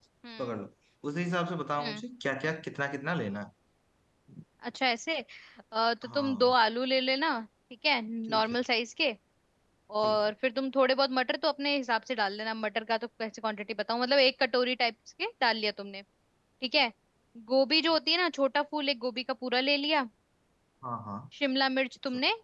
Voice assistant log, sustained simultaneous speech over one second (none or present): none